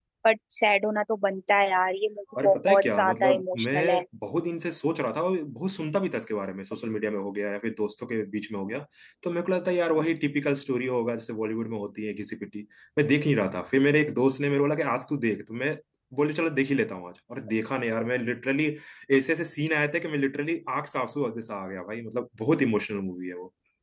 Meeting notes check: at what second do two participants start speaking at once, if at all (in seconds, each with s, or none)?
2.4 s